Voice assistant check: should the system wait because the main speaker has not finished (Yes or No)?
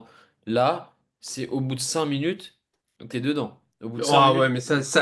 No